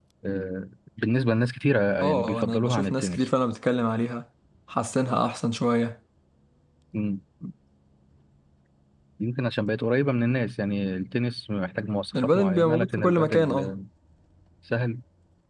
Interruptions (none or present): present